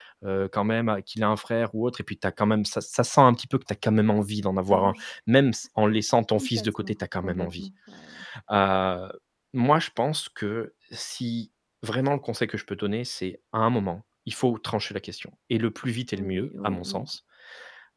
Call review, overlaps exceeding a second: present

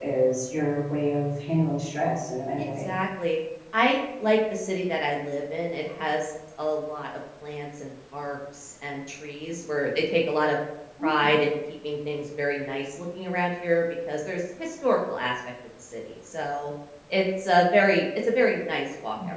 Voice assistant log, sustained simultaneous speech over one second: none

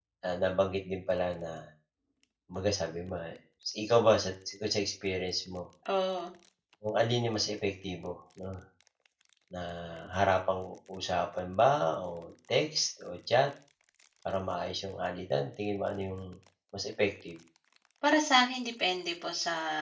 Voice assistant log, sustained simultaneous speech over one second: none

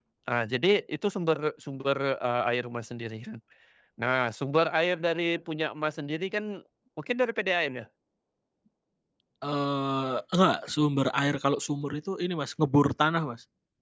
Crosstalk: none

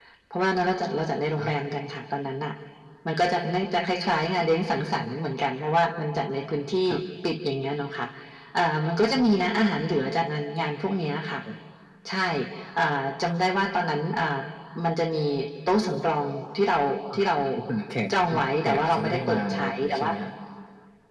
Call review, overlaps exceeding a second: present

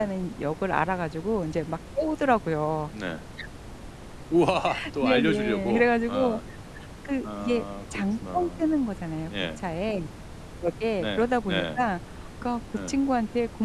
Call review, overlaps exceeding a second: present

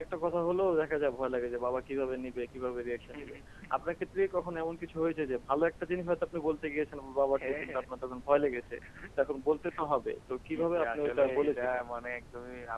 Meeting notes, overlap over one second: present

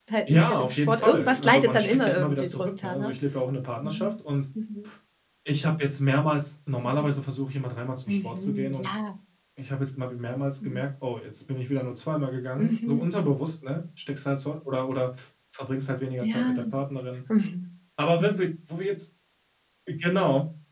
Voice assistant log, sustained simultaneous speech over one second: present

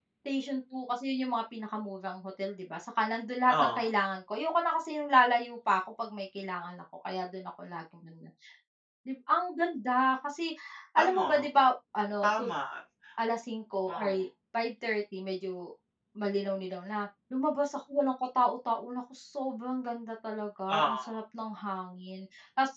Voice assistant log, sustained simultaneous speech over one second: none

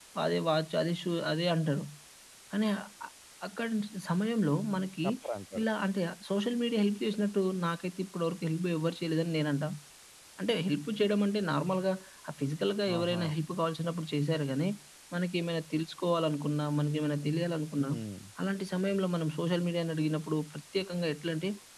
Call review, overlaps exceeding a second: none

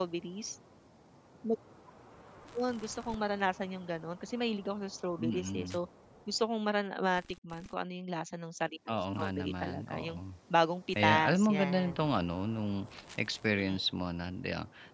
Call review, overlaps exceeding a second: present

